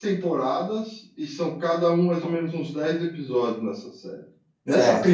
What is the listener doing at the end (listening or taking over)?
taking over